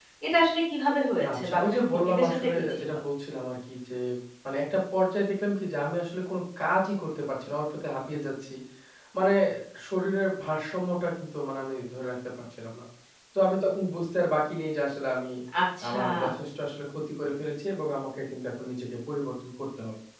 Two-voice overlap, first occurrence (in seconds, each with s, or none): 1.3 s